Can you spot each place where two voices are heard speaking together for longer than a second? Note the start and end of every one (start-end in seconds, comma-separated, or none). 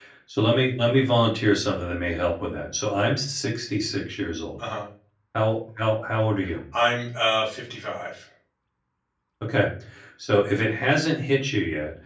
none